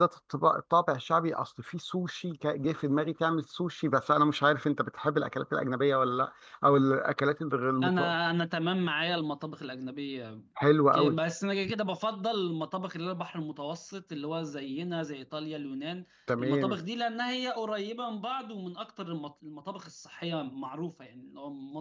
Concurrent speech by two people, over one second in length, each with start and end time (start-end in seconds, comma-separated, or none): none